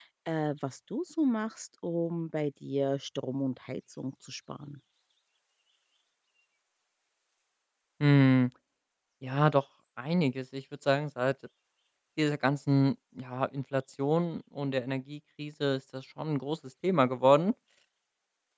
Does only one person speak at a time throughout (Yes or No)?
Yes